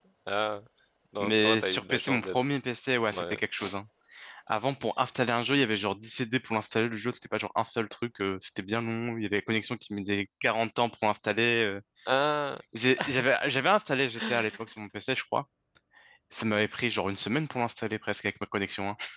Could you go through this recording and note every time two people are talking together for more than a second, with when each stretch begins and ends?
1.2-2.5

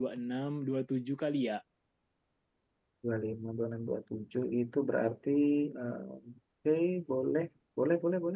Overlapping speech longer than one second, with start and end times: none

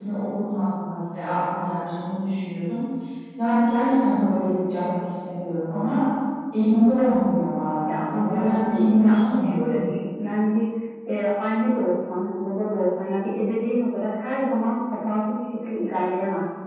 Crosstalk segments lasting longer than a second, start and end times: 7.9-9.8

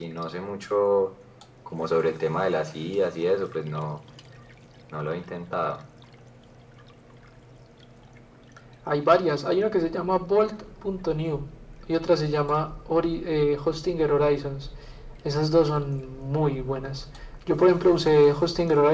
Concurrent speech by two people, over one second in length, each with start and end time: none

